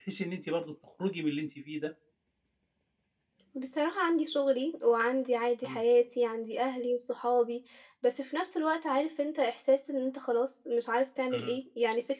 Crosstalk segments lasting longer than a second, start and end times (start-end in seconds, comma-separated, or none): none